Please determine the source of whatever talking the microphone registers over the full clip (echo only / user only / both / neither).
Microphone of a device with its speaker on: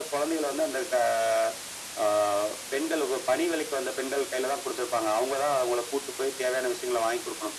echo only